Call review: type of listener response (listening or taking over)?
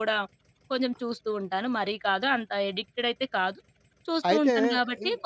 listening